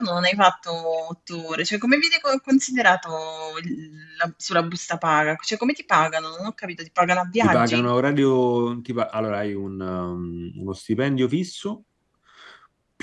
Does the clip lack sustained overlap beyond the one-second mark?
Yes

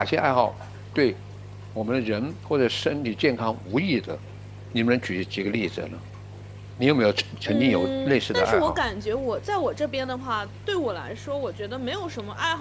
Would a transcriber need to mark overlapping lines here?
Yes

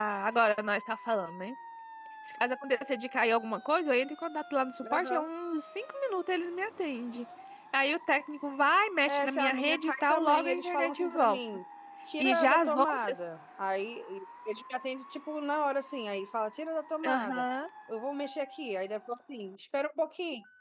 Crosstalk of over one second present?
Yes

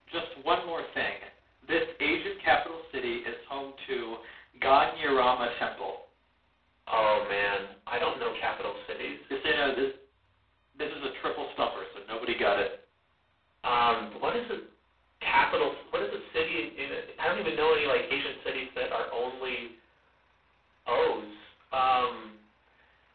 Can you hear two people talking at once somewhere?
No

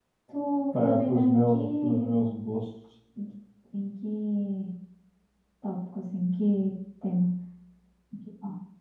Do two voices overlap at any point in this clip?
Yes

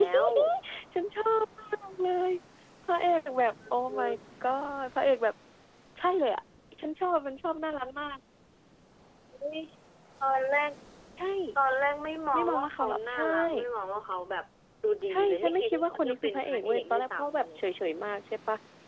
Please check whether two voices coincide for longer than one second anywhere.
Yes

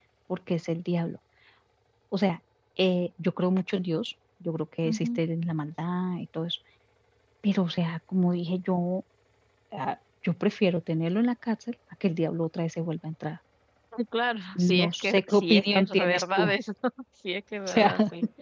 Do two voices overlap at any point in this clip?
Yes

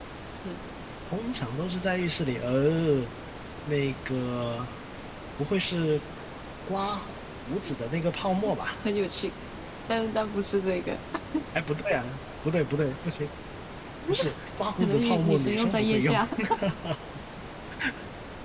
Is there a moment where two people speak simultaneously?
Yes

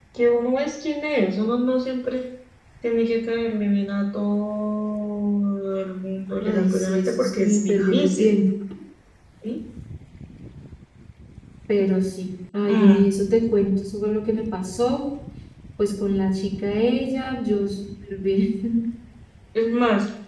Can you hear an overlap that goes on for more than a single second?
Yes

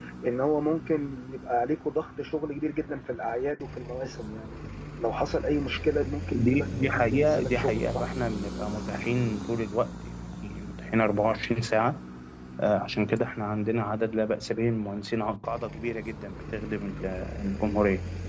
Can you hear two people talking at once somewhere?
Yes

